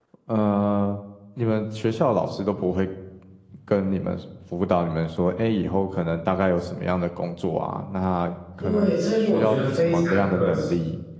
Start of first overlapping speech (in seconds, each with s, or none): 8.6 s